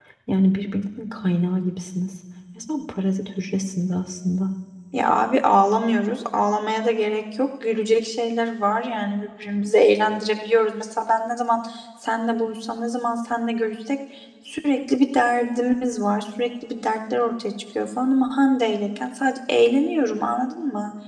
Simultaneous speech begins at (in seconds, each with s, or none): none